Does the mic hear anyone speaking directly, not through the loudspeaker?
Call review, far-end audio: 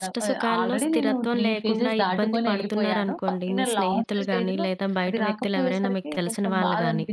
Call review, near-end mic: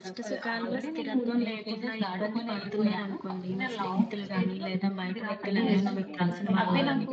Yes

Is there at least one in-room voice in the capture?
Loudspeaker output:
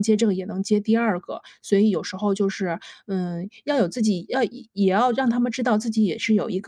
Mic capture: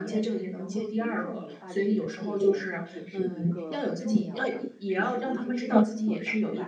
Yes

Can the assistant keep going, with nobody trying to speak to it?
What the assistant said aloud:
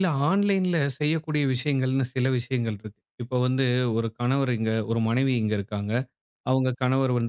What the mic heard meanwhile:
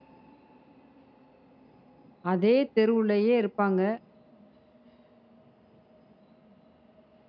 No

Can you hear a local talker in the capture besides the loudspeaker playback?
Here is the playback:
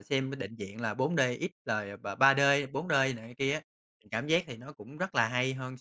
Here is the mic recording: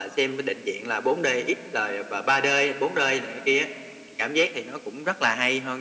No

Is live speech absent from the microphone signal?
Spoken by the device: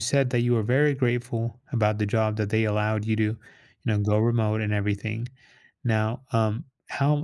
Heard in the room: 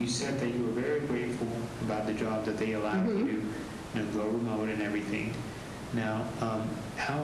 No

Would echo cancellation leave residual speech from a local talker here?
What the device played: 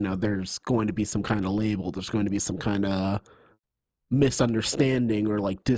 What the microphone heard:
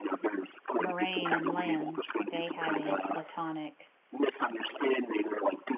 Yes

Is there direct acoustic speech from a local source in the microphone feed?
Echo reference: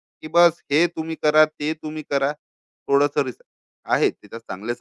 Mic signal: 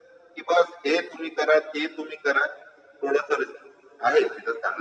No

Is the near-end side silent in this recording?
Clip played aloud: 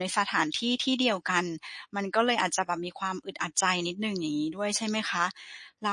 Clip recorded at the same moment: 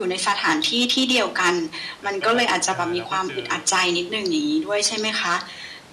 No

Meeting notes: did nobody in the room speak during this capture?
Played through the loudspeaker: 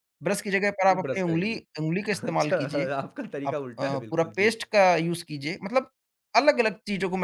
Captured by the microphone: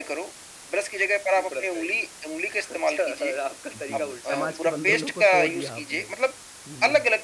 No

